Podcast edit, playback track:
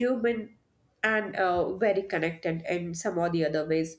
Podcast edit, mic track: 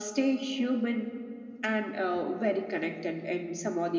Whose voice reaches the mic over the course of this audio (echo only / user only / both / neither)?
echo only